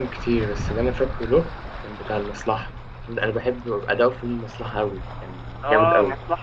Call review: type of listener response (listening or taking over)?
taking over